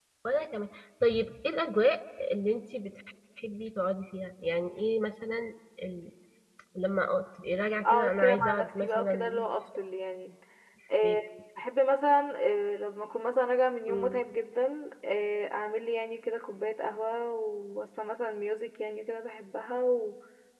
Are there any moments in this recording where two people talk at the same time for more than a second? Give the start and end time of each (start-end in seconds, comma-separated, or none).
7.8-9.4